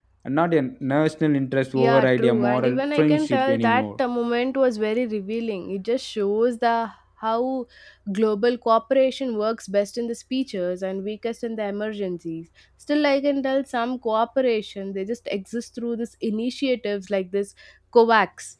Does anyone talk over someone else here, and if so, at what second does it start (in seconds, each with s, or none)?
1.8 s